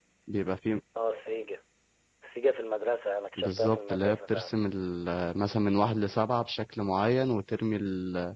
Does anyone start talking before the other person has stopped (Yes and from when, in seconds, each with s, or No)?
Yes, from 3.4 s